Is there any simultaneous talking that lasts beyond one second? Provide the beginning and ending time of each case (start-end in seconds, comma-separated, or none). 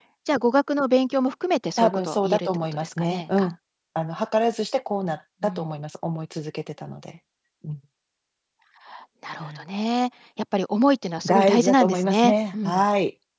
1.8-3.5, 11.2-12.8